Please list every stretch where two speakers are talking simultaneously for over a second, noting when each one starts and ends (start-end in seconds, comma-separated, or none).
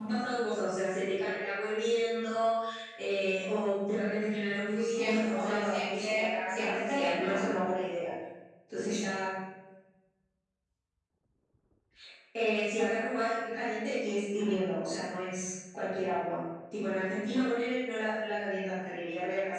4.8-7.6